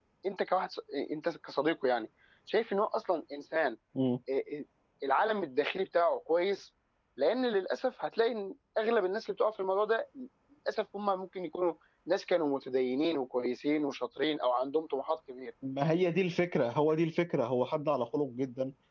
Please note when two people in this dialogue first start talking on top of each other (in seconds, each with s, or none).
none